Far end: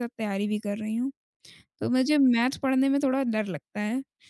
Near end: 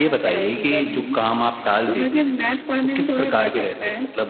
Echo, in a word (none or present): present